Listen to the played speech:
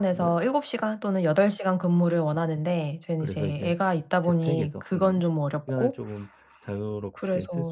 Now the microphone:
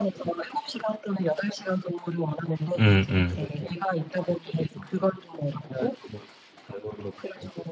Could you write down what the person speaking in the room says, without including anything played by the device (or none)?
음음.